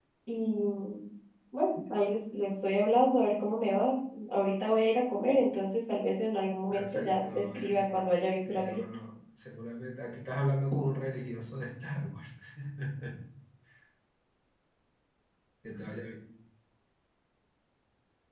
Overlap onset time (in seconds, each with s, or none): 6.7 s